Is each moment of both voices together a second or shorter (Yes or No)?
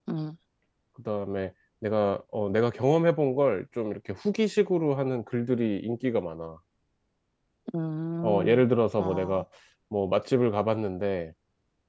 Yes